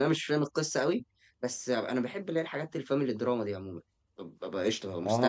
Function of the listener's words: taking over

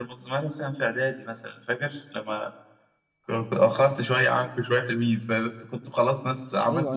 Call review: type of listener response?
taking over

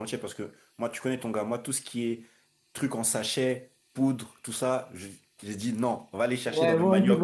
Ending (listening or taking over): taking over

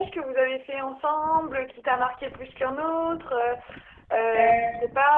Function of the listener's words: listening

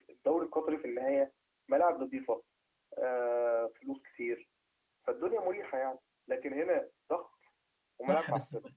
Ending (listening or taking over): taking over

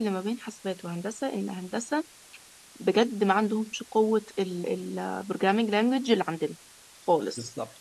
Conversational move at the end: listening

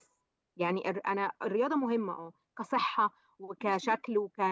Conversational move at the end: listening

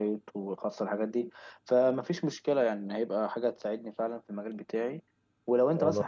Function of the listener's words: listening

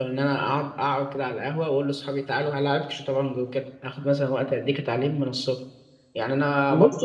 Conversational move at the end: listening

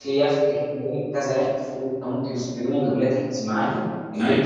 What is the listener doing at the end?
listening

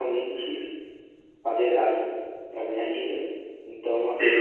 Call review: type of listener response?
taking over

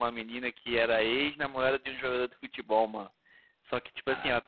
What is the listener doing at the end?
listening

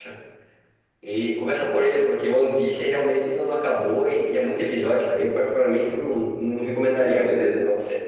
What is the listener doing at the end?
taking over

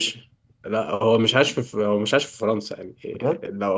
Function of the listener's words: listening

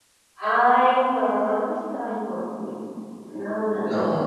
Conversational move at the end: taking over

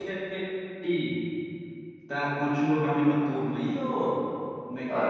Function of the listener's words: taking over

